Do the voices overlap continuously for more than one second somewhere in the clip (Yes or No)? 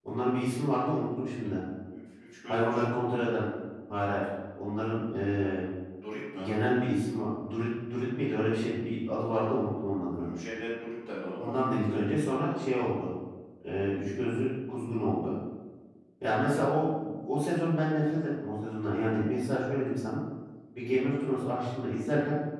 No